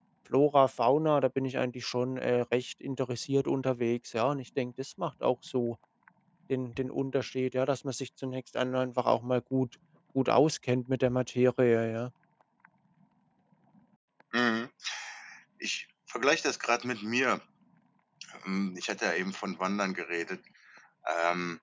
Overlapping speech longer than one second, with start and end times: none

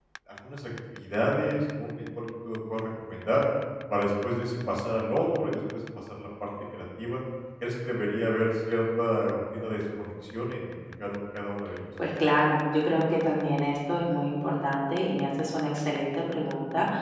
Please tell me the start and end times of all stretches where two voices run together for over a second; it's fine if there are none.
none

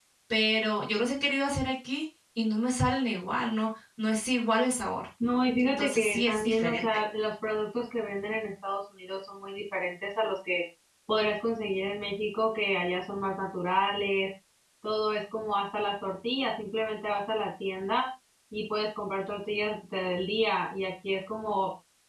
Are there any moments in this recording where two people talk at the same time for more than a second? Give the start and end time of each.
5.6-6.8

